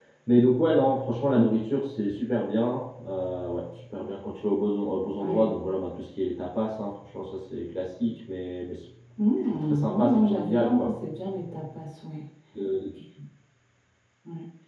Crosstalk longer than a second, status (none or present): present